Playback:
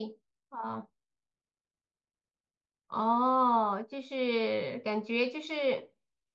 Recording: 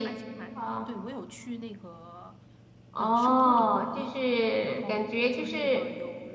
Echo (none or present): present